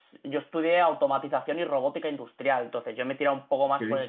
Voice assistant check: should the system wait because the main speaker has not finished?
Yes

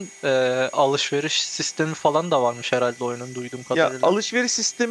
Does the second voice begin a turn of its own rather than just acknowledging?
Yes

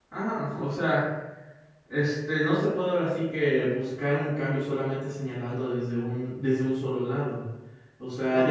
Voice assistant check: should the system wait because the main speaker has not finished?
Yes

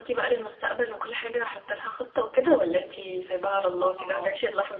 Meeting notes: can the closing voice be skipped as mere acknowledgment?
No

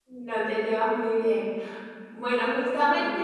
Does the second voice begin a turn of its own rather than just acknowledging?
No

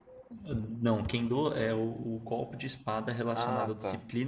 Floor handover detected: No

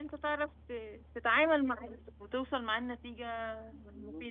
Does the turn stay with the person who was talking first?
No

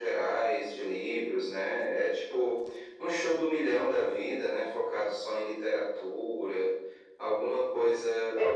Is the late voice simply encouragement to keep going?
Yes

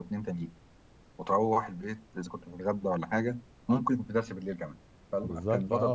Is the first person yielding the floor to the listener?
Yes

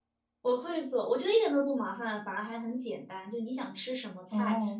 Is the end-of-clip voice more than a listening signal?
No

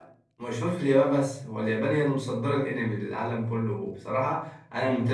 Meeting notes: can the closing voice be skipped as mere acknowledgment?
Yes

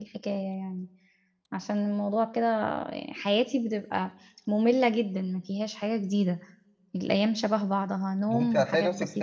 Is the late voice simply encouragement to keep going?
No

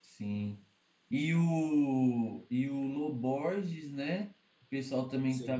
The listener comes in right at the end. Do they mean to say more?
No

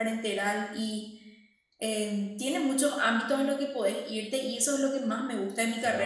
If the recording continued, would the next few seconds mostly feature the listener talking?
No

